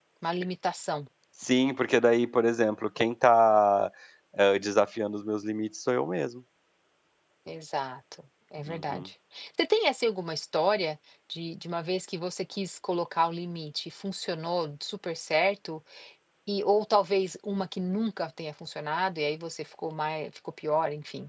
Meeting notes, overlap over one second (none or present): none